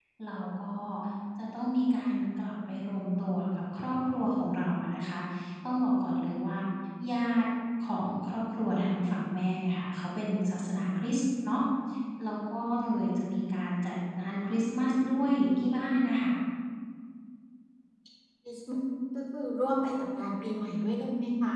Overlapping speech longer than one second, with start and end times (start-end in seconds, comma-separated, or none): none